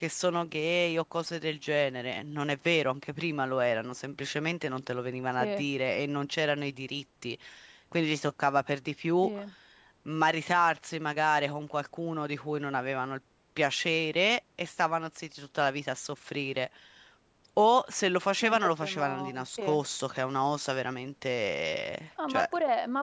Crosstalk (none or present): present